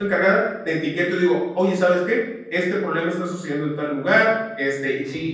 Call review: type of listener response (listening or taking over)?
taking over